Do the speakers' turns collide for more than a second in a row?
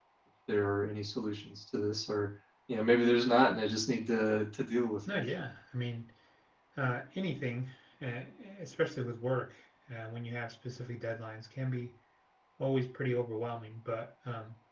No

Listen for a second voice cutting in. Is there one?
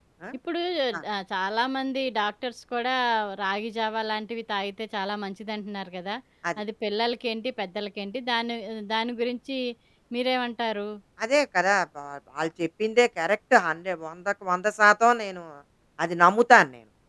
No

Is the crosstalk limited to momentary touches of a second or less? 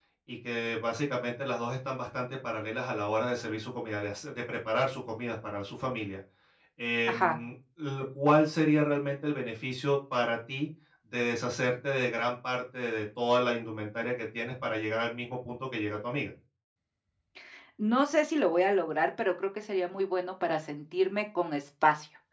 Yes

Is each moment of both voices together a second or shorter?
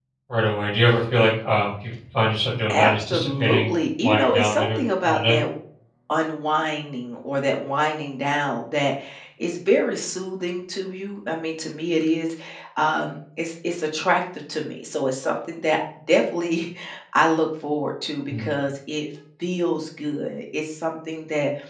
No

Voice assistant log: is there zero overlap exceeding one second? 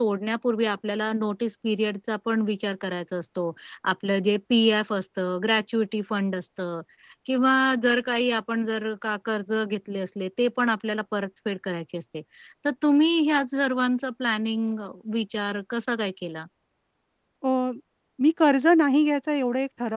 Yes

